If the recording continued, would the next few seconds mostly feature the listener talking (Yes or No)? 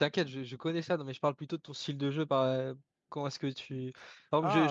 No